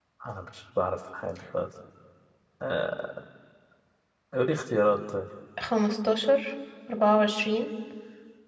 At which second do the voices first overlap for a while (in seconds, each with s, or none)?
none